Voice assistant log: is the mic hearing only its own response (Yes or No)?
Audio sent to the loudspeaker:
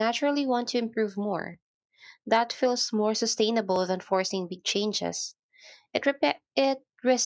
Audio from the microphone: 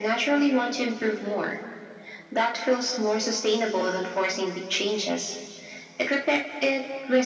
Yes